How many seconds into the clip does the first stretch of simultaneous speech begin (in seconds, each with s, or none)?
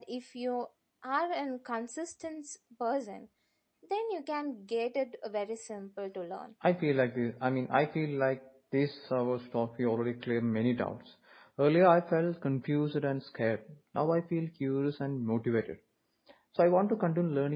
none